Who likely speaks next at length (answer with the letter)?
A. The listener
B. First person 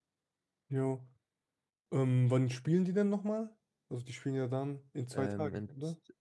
A